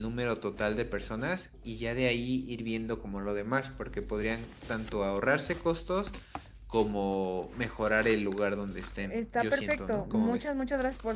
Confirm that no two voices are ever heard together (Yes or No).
No